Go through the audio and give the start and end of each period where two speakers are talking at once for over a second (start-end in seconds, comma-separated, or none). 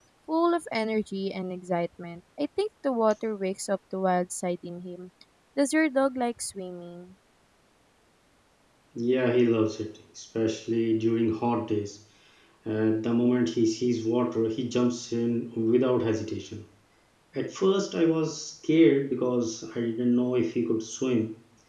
none